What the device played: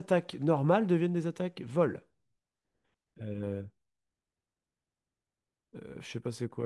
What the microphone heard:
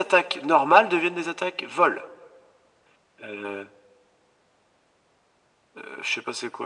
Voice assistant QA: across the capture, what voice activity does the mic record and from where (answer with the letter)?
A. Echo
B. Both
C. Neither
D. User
A